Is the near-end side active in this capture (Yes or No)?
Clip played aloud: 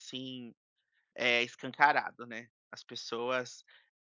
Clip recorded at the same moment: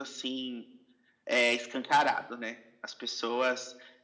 No